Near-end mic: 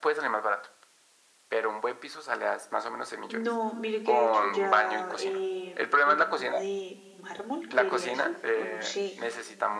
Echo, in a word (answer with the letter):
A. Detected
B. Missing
A